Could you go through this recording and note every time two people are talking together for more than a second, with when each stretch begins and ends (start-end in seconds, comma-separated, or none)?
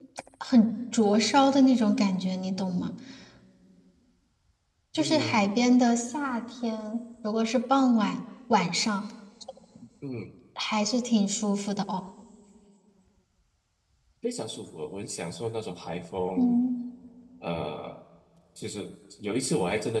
none